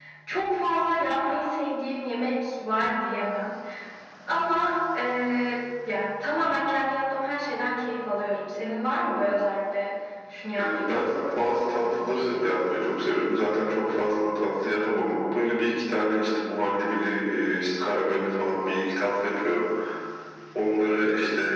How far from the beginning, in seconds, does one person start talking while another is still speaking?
10.6 s

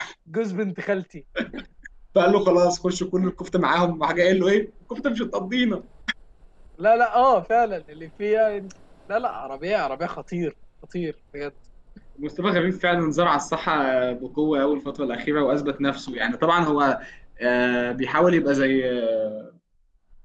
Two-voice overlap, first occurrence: none

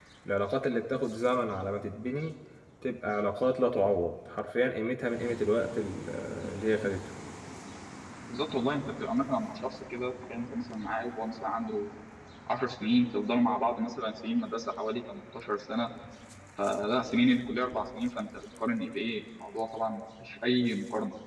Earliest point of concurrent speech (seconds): none

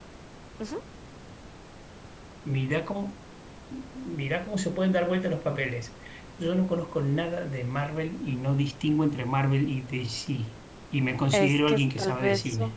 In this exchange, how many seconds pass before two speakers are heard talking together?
11.3 s

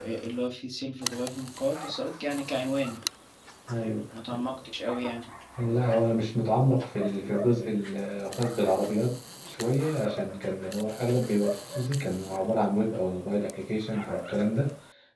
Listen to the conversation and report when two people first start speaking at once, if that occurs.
none

